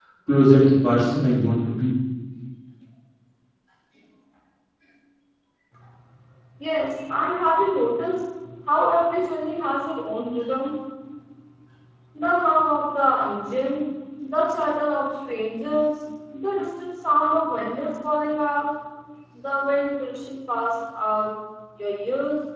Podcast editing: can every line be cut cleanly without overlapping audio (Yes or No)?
Yes